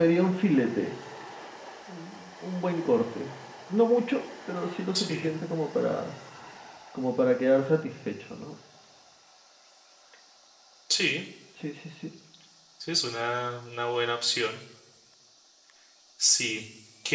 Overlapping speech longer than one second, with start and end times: none

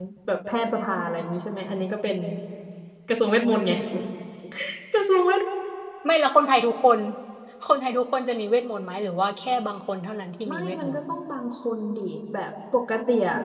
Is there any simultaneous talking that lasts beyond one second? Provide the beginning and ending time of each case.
none

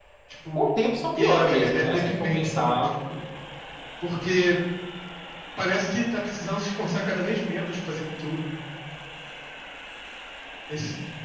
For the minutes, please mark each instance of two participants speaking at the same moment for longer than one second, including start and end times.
1.1-2.9

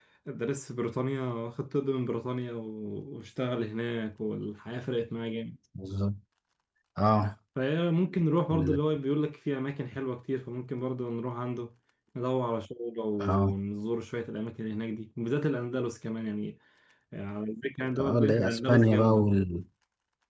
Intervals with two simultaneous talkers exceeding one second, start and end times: 18.0-19.3

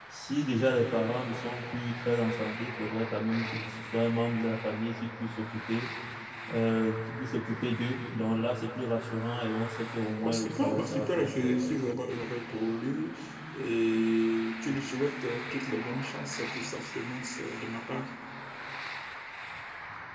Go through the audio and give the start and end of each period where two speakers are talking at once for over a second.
10.2-11.5

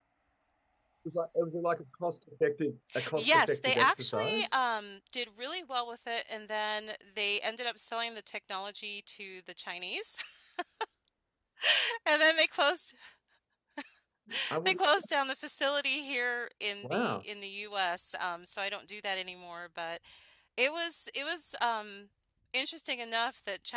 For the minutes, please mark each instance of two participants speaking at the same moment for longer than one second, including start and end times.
3.1-4.5

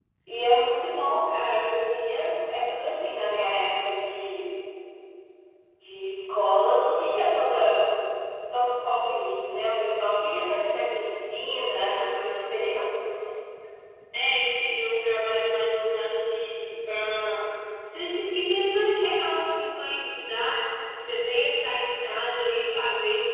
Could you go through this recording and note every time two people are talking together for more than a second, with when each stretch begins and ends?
none

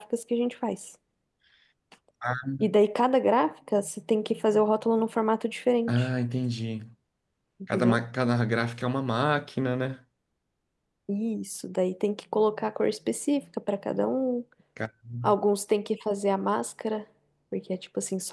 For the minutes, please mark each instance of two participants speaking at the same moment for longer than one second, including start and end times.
none

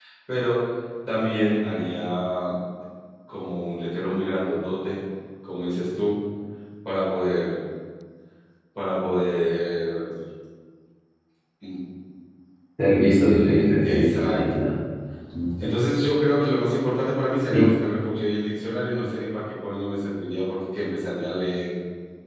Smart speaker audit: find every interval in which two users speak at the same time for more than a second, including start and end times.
13.0-14.6

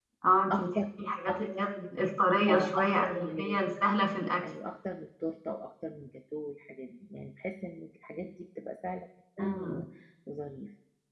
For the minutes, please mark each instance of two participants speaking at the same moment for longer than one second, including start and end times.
2.5-3.8

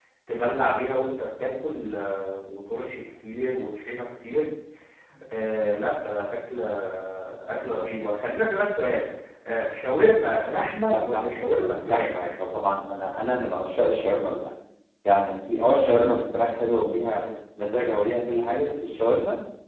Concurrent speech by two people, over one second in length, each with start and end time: 10.9-12.2

